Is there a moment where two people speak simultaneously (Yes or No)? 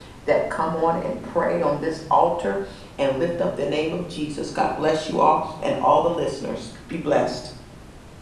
No